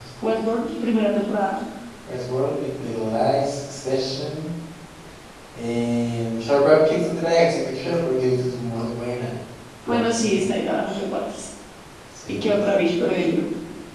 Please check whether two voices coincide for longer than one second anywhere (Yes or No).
No